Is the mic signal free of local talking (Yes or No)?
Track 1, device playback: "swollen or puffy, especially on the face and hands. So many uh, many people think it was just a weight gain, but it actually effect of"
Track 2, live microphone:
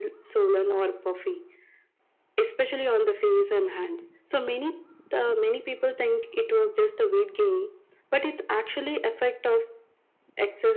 Yes